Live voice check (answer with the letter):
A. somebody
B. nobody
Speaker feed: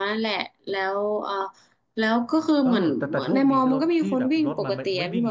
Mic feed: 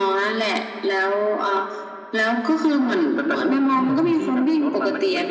A